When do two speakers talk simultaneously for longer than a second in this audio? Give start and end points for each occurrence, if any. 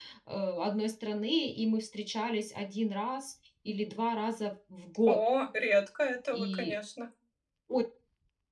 none

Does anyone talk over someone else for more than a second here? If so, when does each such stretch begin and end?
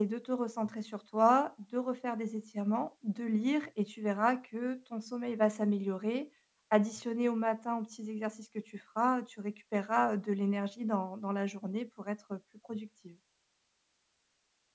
none

